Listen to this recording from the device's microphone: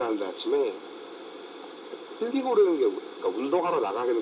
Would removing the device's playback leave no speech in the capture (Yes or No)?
Yes